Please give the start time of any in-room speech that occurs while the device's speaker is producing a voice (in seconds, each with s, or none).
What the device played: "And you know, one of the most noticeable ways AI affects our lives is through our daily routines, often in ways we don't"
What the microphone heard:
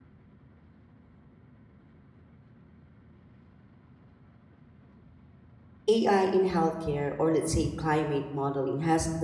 5.9 s